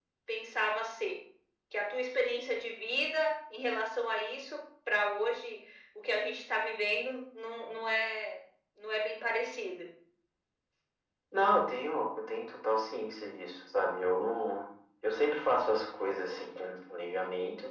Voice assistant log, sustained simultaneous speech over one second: none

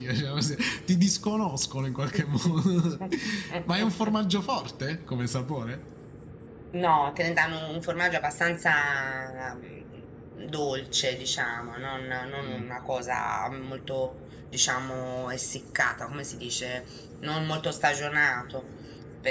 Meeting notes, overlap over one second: none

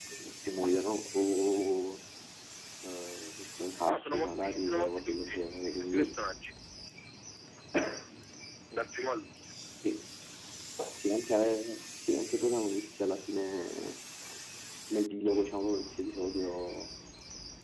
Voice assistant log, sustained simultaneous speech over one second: present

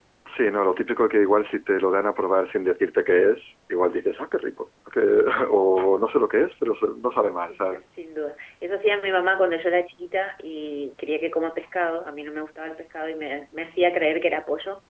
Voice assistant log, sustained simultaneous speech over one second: none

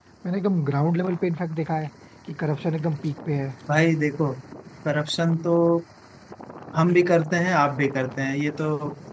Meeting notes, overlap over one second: none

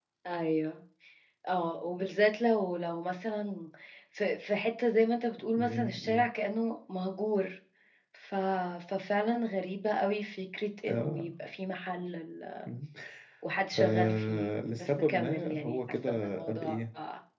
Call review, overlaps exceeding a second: present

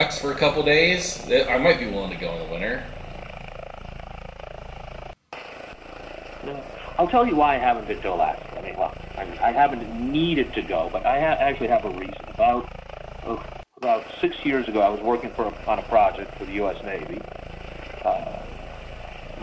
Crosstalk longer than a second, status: none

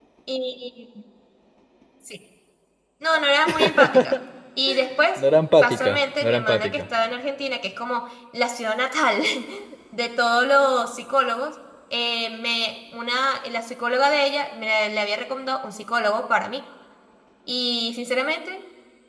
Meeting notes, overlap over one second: present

